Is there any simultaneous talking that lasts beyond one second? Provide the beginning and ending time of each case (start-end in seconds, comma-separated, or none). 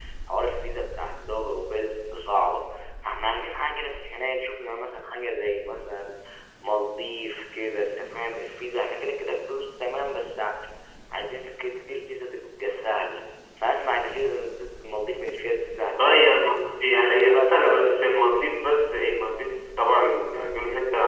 17.2-18.5